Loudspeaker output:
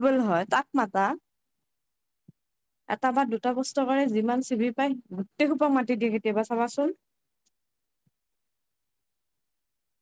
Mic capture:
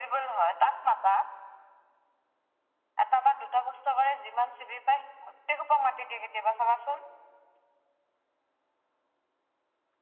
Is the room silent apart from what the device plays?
Yes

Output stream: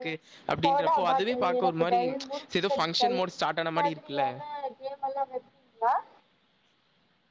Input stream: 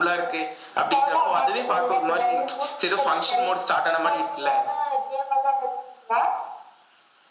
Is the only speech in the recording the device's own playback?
Yes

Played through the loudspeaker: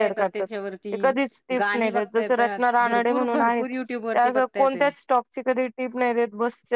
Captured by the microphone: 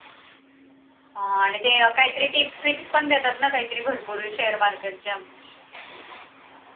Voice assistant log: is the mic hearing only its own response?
No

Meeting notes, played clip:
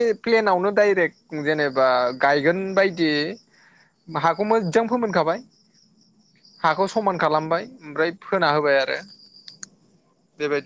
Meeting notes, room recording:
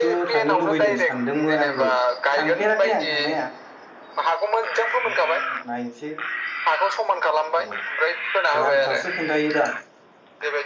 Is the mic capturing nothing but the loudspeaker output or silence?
No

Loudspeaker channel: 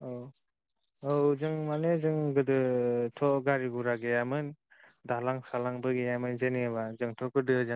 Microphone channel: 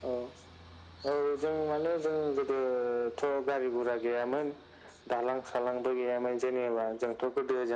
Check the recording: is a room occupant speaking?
No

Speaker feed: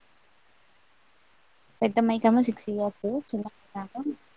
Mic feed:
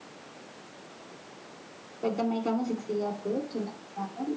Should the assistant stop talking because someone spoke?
No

